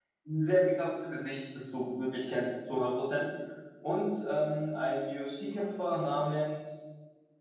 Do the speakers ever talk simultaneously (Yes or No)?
No